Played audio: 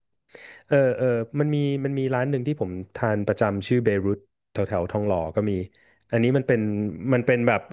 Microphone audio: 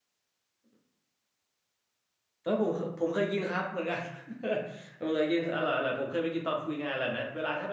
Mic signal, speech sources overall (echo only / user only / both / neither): user only